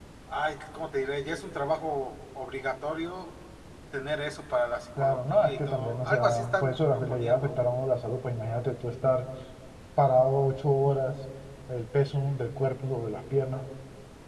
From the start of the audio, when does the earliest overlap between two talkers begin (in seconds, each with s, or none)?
5.0 s